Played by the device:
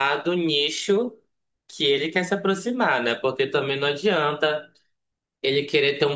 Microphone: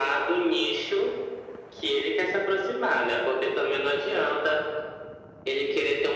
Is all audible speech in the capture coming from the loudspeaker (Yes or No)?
Yes